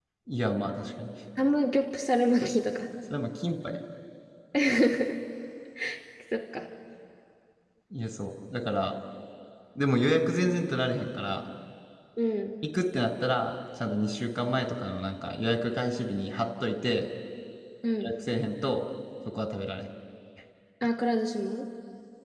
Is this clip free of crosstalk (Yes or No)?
Yes